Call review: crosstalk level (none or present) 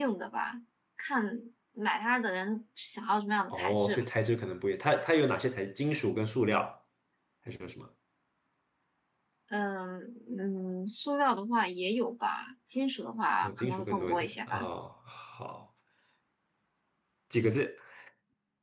present